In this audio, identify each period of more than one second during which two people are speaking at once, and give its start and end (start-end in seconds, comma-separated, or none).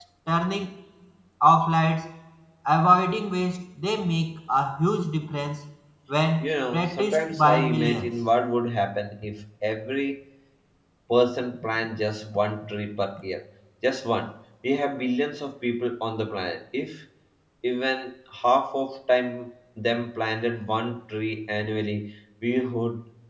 6.4-8.1